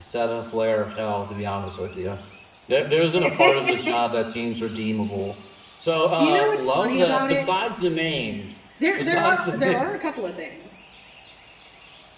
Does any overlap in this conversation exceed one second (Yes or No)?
Yes